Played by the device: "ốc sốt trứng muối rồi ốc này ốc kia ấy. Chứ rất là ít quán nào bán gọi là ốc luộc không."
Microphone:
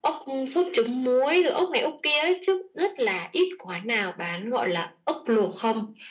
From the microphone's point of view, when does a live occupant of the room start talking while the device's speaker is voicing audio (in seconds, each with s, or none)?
none